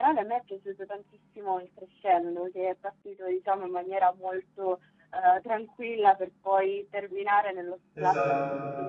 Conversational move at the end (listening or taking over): listening